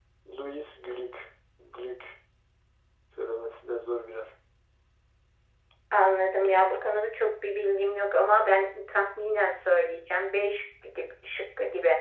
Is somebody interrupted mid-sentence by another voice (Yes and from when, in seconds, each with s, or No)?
No